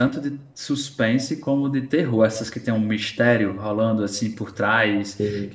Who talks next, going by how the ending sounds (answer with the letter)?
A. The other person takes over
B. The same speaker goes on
B